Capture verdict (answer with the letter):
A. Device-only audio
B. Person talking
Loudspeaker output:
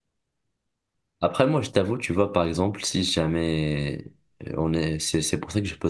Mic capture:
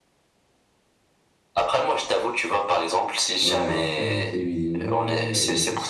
B